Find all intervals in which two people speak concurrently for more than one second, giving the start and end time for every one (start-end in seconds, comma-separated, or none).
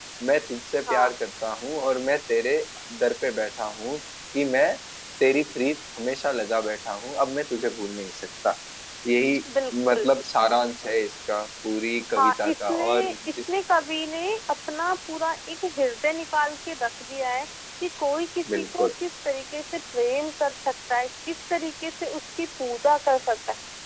12.2-13.4